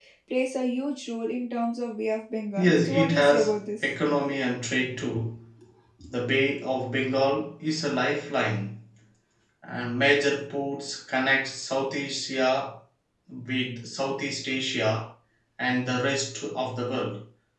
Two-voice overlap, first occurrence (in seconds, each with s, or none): 2.6 s